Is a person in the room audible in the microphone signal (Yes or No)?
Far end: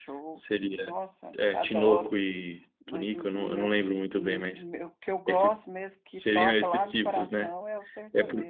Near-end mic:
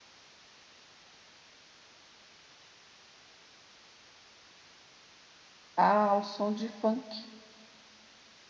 Yes